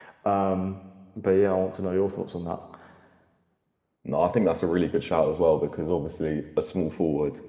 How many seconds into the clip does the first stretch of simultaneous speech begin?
none

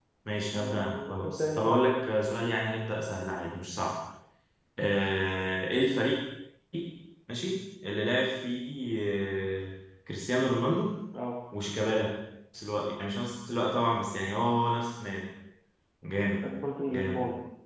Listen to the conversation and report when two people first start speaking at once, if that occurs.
0.5 s

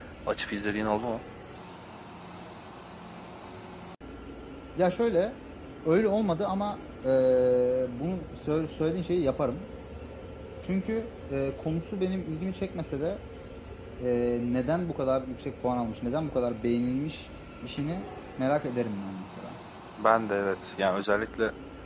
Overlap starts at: none

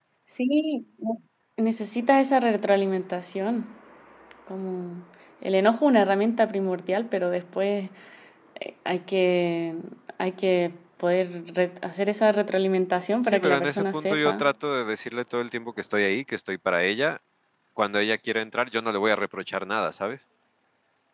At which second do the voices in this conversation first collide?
13.2 s

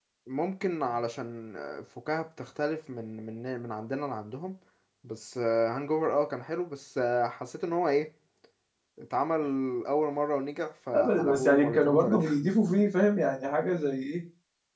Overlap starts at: 10.9 s

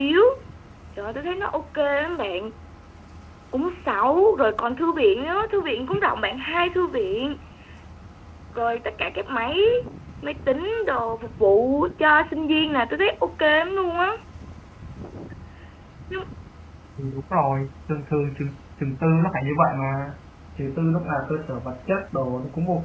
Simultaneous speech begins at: none

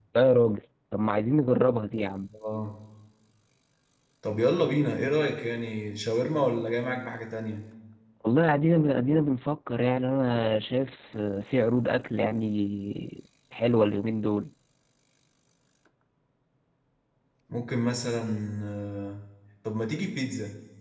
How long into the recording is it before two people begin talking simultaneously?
none

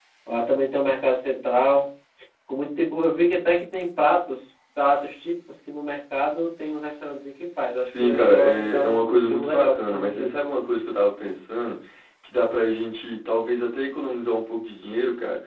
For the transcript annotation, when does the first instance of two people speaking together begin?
7.8 s

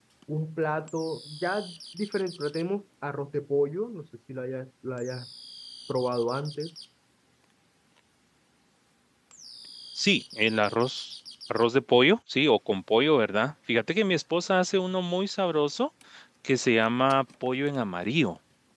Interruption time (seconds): none

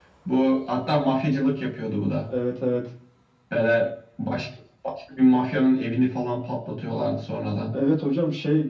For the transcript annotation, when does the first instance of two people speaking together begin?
none

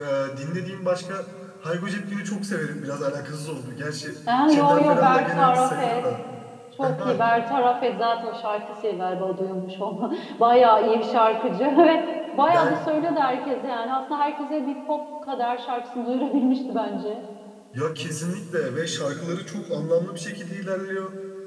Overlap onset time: 4.5 s

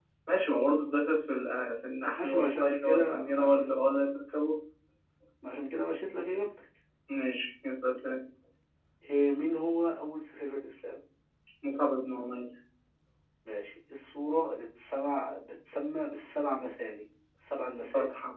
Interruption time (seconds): 2.2 s

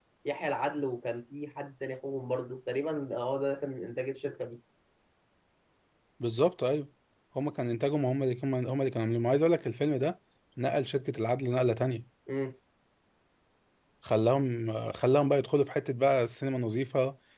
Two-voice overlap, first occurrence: none

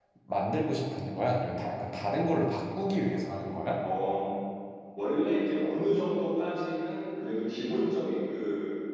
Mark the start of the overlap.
none

